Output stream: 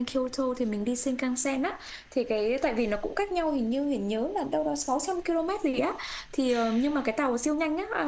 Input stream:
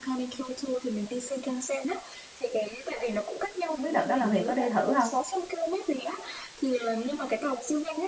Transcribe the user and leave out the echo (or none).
không biết đợt đó là Huyền có đi thử không